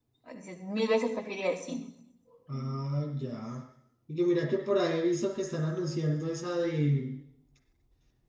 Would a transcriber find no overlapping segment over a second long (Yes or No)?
Yes